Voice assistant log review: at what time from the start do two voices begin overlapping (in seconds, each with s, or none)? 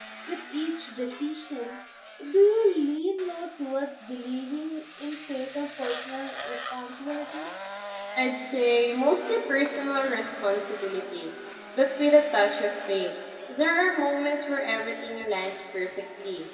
none